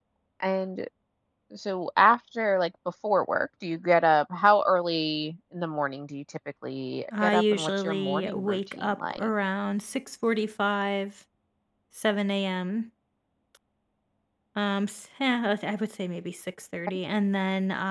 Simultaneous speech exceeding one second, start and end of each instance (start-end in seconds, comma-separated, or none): 7.2-9.3